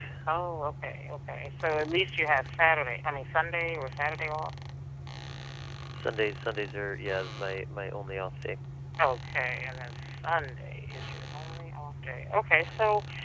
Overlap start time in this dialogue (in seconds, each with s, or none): none